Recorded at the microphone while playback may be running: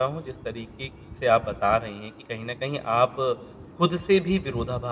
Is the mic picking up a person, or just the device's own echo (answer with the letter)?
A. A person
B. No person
A